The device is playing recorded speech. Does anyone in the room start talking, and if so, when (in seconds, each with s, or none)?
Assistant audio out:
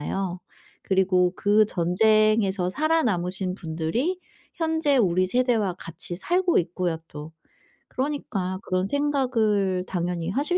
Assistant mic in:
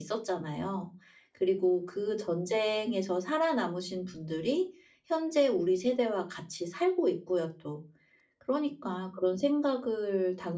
none